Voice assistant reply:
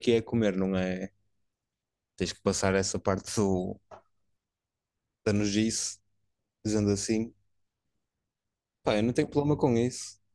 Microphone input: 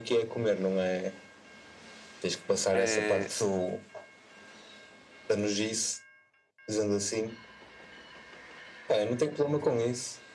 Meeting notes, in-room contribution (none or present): present